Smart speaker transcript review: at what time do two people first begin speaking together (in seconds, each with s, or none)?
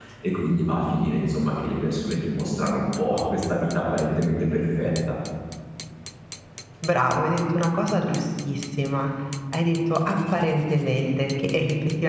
none